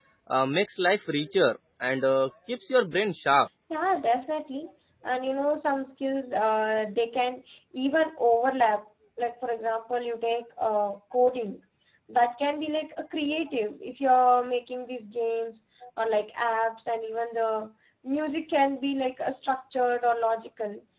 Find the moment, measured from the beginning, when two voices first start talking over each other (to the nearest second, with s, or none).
none